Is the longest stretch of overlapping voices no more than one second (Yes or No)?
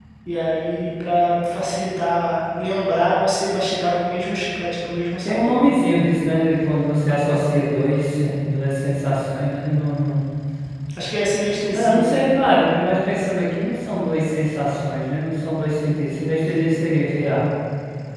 Yes